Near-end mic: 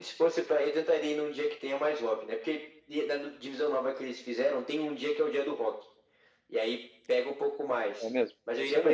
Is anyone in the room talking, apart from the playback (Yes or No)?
Yes